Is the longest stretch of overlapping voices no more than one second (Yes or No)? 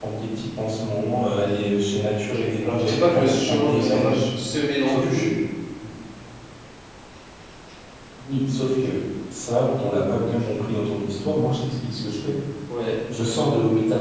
No